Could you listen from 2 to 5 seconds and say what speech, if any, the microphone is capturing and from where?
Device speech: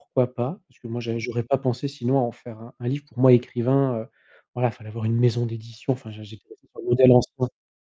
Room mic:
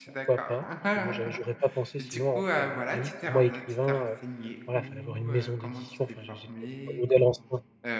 both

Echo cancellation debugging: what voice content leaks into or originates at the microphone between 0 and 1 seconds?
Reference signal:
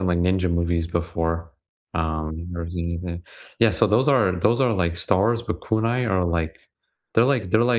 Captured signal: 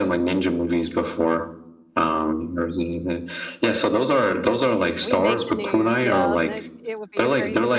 echo only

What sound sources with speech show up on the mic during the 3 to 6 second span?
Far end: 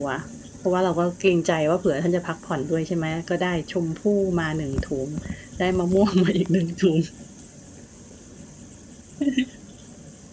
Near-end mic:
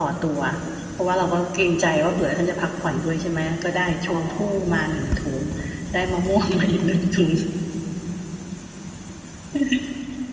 both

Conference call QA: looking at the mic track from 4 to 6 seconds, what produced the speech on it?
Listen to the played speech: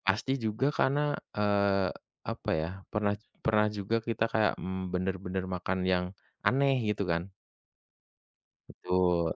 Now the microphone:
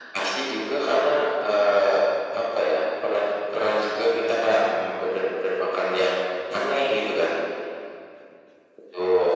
echo only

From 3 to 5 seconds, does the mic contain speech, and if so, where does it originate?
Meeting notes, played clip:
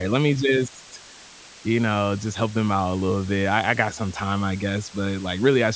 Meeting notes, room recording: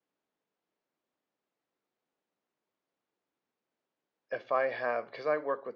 user only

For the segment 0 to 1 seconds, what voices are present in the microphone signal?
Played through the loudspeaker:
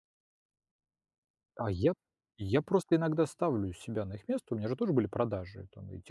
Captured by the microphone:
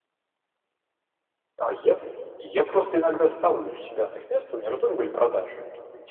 neither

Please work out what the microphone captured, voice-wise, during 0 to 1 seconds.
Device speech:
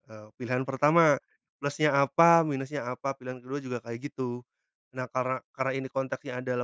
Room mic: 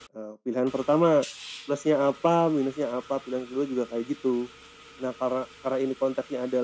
echo only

